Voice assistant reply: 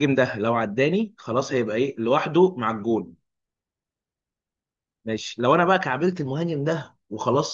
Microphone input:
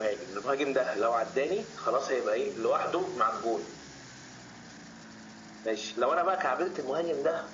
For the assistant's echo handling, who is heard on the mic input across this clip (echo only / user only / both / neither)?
echo only